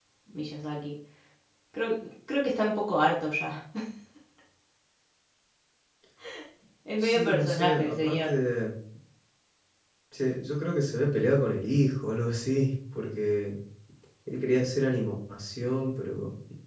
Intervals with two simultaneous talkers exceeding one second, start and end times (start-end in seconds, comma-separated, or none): 7.0-8.3